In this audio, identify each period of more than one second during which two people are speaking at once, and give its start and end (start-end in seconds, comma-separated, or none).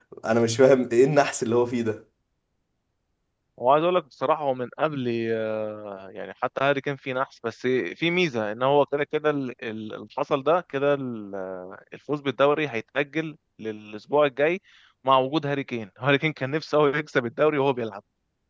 none